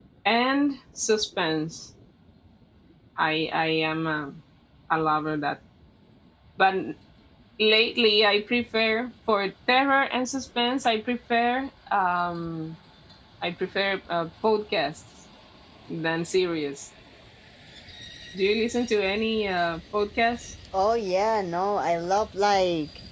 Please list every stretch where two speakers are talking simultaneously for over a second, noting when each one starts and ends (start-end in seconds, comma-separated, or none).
none